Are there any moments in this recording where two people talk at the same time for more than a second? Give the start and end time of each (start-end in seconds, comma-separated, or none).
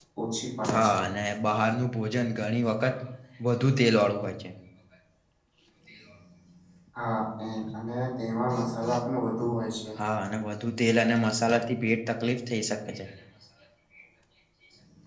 none